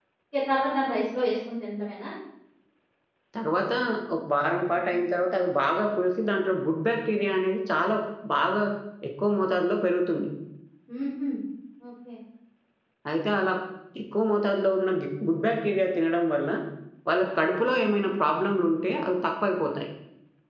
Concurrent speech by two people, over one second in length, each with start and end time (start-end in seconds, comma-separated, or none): none